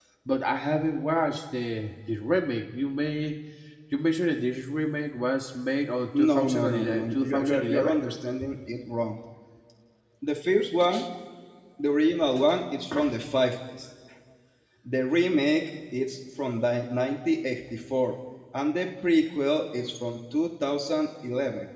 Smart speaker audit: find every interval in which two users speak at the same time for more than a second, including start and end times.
6.2-8.0

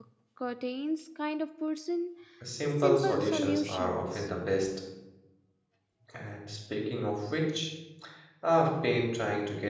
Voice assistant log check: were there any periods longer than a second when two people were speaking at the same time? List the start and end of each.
2.8-4.3

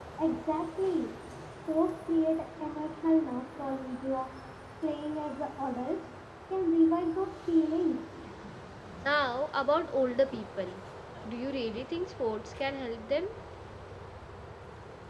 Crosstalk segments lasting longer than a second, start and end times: none

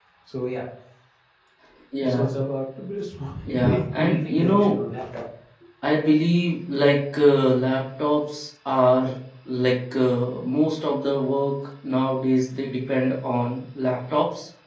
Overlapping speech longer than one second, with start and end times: 3.5-4.8

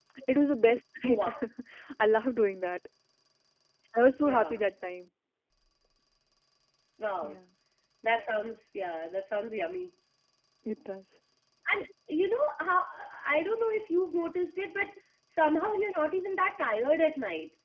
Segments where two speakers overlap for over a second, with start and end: none

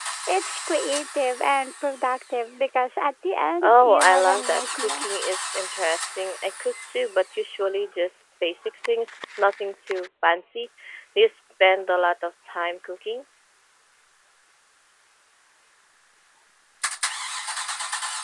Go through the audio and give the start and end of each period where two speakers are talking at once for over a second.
3.6-5.1

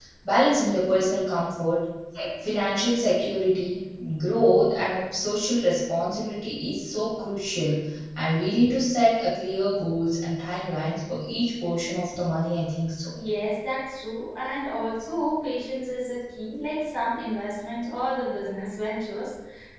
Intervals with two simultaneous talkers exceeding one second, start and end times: none

